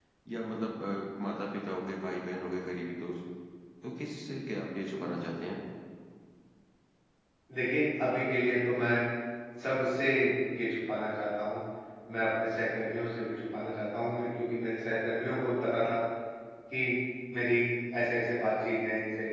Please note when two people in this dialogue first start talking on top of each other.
none

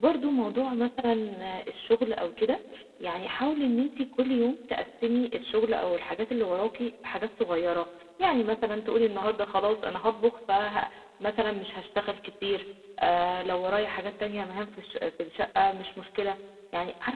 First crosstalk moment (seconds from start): none

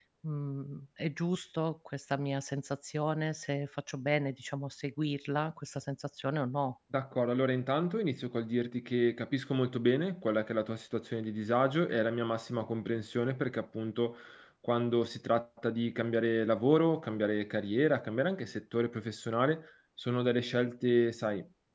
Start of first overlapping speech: none

